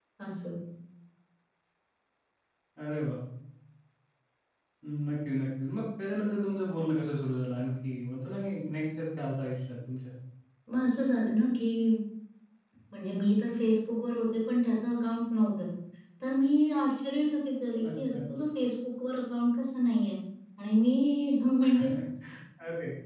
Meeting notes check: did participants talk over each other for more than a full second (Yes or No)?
No